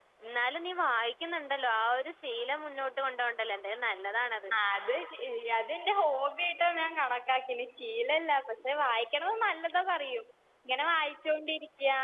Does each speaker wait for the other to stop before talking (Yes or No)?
Yes